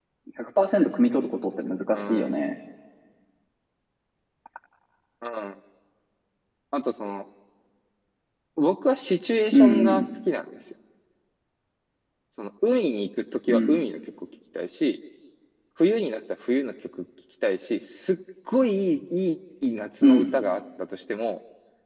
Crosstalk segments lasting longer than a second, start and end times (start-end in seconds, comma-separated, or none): none